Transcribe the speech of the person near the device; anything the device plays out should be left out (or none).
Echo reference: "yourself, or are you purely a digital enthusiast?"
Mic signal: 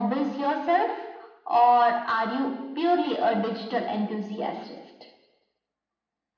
none